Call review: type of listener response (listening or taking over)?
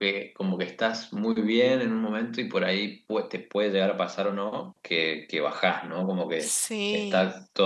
listening